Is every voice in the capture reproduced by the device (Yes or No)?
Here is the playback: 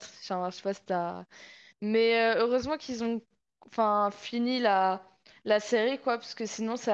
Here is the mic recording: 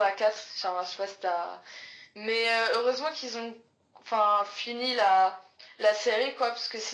Yes